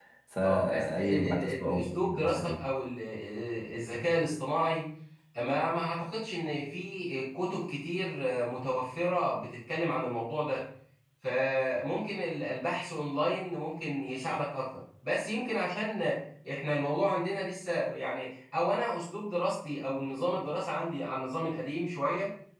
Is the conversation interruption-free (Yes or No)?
No